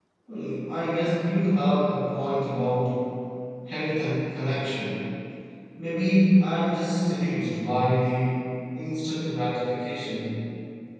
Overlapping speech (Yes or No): No